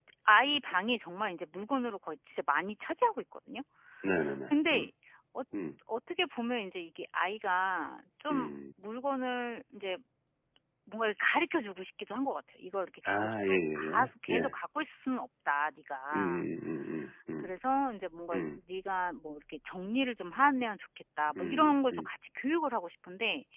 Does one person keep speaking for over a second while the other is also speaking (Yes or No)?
Yes